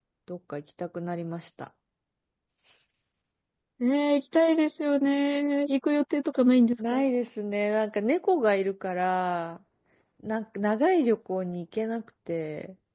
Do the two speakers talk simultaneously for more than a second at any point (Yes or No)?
No